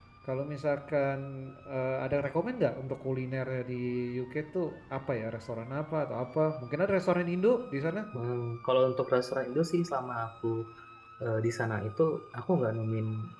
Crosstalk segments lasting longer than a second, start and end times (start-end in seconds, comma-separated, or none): none